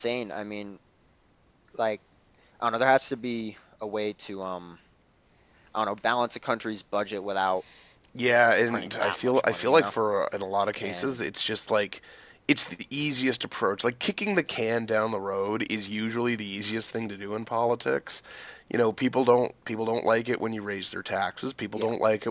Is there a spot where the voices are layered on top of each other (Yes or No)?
Yes